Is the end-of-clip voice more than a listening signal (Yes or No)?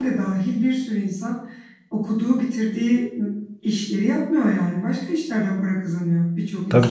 Yes